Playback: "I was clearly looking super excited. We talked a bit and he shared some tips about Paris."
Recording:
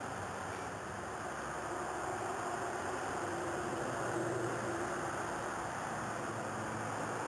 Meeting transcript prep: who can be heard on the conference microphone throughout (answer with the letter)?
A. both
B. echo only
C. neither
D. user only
C